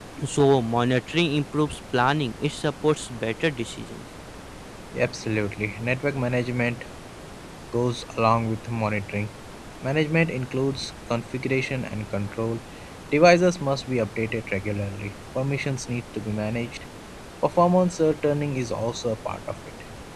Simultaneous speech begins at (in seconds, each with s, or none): none